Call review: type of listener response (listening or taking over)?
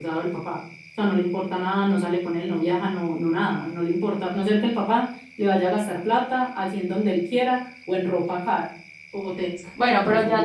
taking over